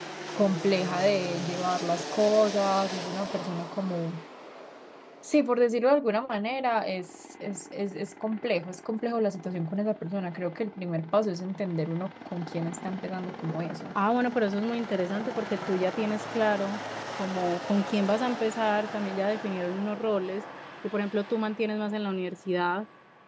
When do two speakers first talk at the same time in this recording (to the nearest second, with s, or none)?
none